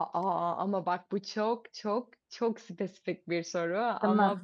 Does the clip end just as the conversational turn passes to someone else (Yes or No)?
No